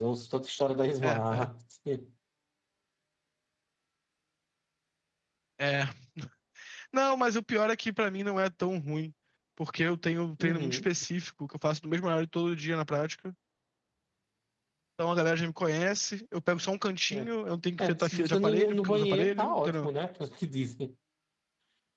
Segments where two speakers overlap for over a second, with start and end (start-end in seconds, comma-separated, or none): 17.8-19.9